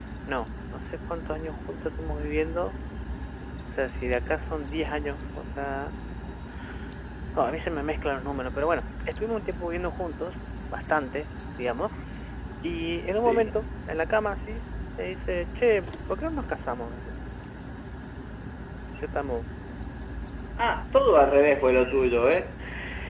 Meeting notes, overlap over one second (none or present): none